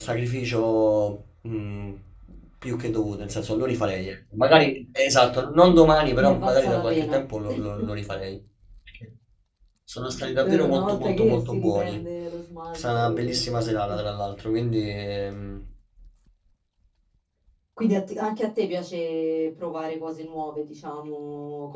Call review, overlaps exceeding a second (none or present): present